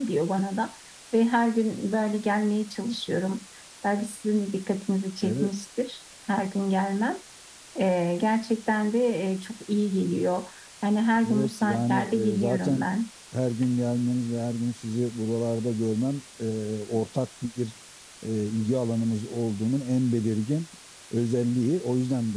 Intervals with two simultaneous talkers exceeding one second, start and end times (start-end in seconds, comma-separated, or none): 11.2-12.8